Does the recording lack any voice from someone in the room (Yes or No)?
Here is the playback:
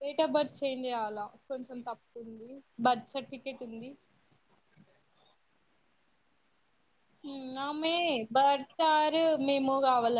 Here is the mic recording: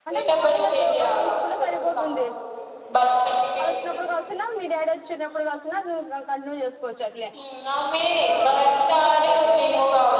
No